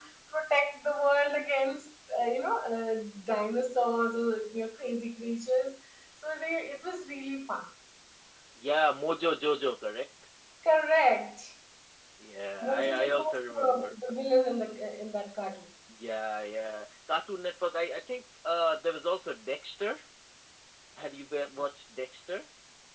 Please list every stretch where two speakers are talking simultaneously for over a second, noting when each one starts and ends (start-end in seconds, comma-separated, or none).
12.6-14.0